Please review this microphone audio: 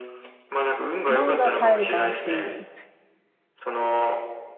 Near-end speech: present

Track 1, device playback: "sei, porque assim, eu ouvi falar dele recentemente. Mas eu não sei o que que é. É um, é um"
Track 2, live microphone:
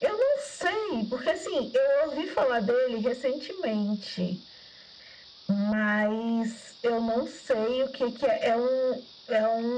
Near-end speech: none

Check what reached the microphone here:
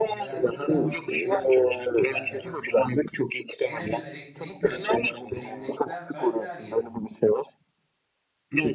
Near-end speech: present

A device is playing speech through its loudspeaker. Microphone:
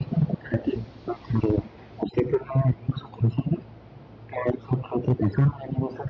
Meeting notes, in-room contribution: none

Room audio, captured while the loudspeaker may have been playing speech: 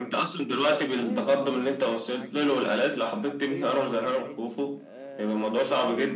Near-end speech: present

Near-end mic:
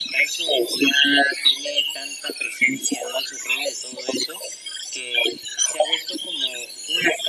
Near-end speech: none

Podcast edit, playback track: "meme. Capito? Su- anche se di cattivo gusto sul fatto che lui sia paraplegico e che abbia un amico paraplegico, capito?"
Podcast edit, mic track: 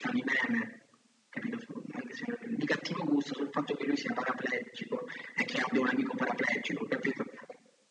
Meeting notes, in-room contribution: none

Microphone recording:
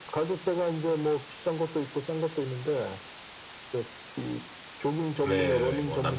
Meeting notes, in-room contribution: present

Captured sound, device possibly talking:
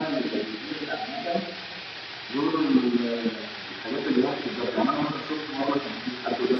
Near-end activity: none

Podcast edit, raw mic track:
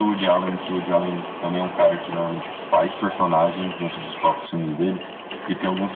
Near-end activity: none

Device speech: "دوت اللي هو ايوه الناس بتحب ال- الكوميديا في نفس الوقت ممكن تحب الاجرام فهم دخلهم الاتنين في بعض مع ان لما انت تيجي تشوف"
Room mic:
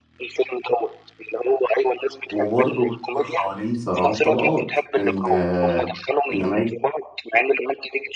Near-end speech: present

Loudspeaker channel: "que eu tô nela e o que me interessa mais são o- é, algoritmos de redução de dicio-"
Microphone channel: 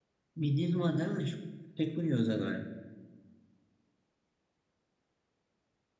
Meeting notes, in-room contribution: present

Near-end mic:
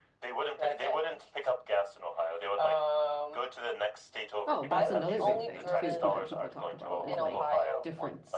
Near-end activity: present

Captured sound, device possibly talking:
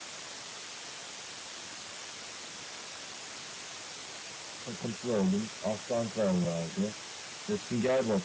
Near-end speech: present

